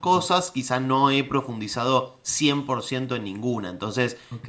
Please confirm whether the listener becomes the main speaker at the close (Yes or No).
Yes